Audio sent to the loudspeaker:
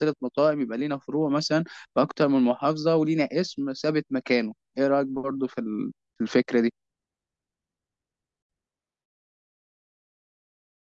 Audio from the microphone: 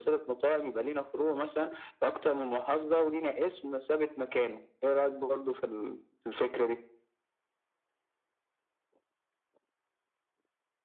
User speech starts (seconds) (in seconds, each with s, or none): none